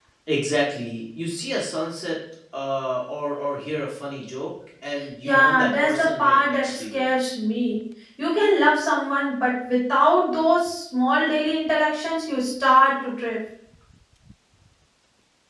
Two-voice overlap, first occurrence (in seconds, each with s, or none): 5.2 s